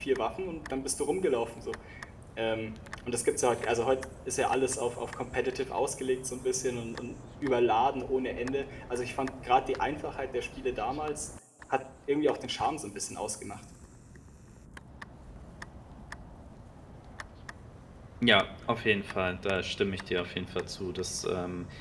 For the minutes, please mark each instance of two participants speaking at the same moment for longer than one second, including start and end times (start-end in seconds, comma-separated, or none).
none